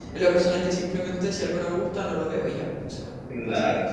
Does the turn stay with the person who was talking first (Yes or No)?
No